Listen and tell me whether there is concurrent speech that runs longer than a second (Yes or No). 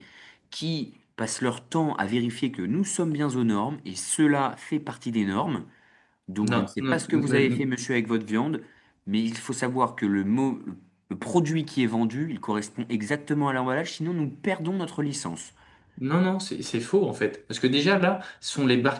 Yes